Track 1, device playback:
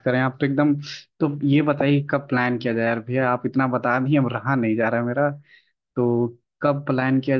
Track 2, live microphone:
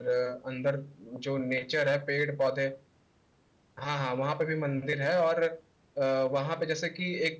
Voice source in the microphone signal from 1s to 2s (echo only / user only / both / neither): user only